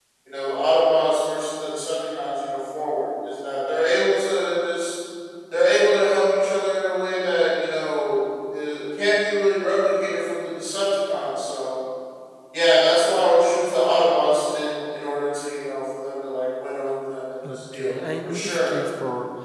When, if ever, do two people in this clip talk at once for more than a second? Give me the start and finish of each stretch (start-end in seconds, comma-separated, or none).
17.4-18.8